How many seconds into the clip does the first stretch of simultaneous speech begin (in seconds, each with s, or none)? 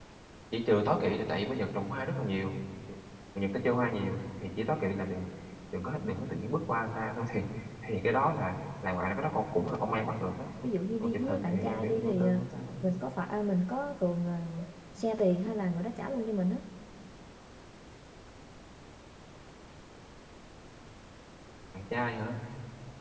11.0 s